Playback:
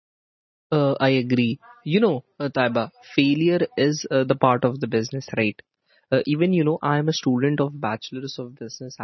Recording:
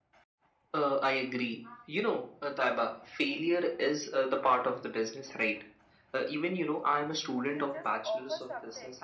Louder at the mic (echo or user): echo